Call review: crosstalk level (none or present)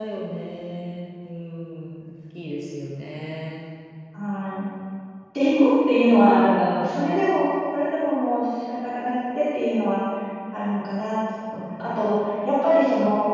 none